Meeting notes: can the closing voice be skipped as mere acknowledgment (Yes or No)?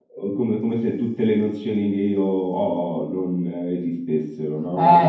No